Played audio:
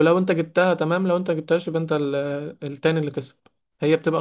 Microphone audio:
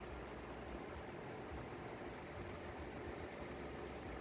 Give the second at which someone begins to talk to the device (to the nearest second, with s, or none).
none